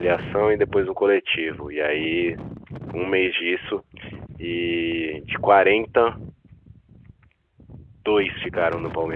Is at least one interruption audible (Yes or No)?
No